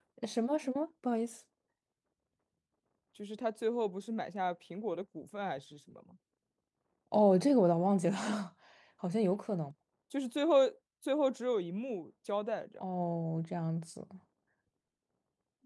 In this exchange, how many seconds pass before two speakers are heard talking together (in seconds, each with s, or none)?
none